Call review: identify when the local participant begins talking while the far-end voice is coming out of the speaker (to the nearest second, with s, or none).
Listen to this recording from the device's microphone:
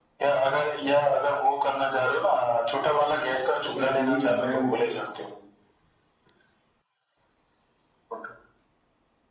4 s